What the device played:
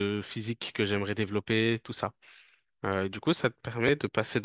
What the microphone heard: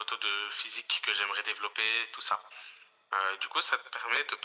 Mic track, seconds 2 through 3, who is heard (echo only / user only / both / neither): echo only